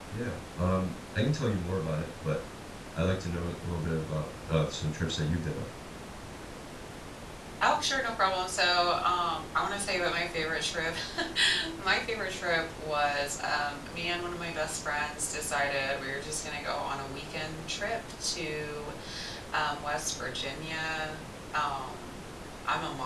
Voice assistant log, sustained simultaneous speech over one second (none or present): none